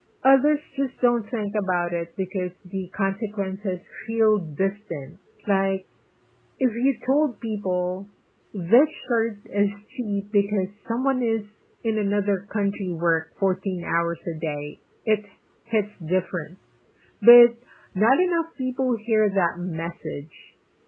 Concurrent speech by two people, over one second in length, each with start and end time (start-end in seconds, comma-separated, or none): none